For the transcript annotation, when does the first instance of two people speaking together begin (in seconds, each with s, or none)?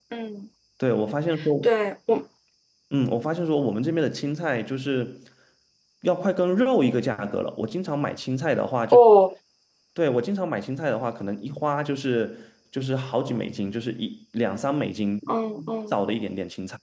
none